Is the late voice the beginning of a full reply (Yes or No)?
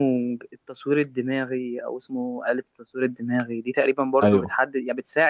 No